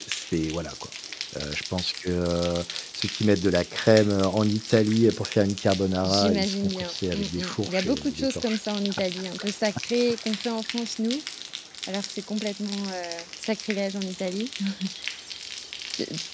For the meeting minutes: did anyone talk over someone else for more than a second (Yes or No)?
Yes